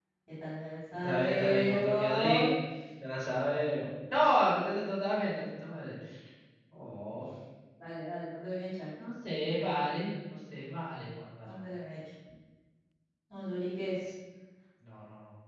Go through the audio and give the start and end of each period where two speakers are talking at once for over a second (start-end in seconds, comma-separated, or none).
0.9-2.4